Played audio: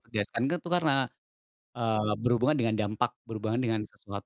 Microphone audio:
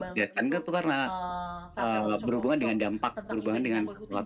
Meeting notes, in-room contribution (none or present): present